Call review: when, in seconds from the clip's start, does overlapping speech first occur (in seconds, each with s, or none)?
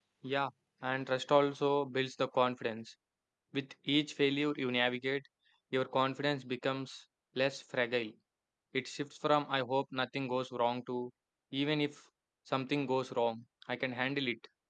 none